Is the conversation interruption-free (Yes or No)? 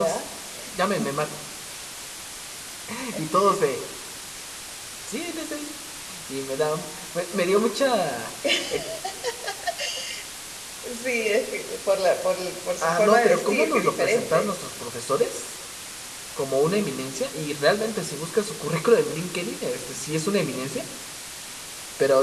No